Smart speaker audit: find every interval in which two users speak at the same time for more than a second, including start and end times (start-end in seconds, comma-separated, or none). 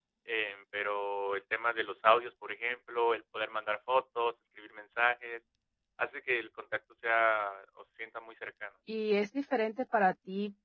none